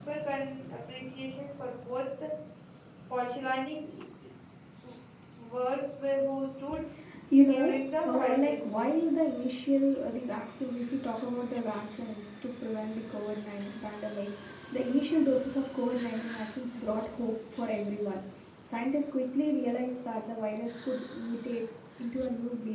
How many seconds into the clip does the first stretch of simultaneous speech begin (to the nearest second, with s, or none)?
7 s